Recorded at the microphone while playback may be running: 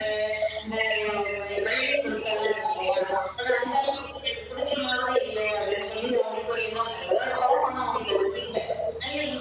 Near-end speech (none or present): none